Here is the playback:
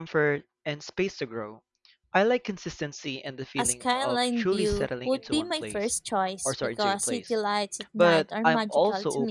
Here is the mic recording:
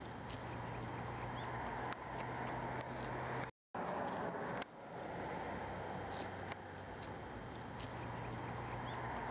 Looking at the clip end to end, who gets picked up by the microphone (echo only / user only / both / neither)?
neither